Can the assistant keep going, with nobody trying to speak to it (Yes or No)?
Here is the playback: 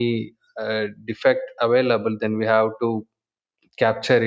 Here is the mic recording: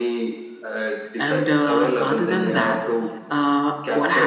No